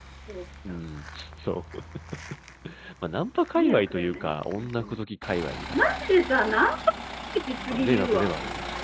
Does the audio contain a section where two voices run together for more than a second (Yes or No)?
Yes